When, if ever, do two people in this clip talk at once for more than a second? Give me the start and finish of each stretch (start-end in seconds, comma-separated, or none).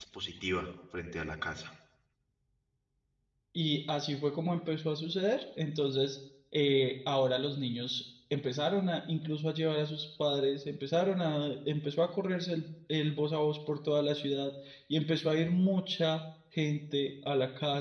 none